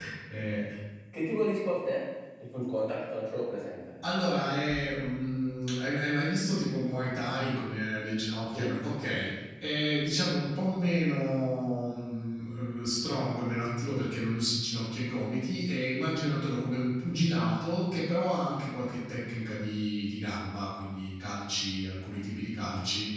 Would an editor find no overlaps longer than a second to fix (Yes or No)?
Yes